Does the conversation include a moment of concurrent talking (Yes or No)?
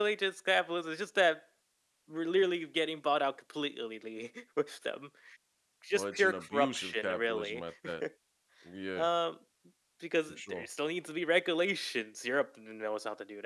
Yes